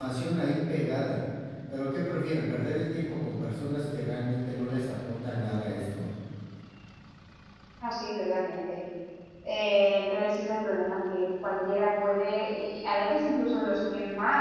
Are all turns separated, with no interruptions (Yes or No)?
Yes